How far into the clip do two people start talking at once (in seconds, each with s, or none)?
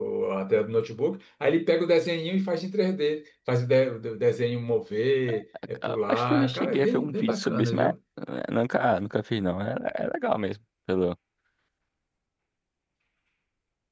5.8 s